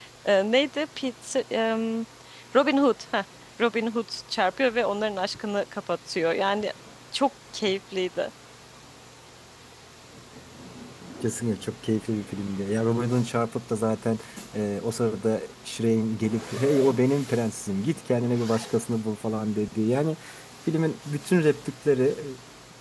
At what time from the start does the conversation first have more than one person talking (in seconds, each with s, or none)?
none